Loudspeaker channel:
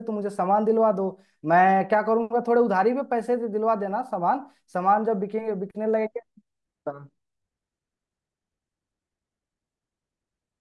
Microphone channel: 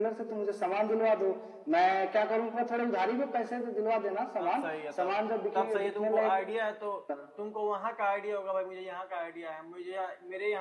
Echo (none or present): present